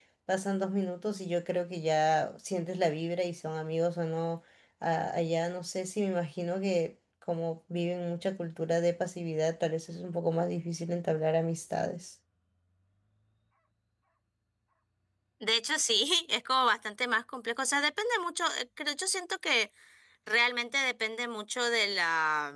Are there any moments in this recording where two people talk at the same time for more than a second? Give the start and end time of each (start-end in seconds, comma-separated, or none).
none